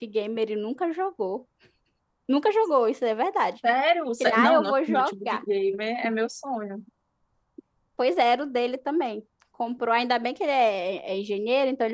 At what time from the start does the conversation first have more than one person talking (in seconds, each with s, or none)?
4.2 s